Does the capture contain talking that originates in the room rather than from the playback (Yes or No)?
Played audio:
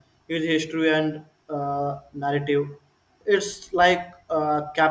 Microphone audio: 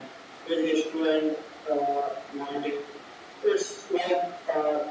No